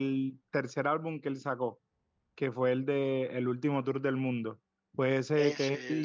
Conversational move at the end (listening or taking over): listening